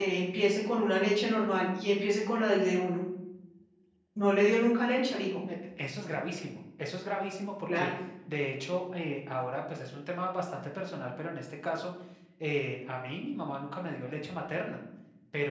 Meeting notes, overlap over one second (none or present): none